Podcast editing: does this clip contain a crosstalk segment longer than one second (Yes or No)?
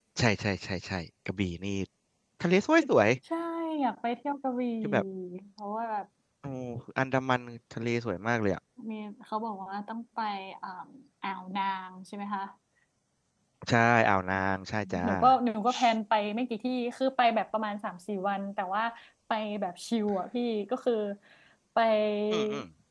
No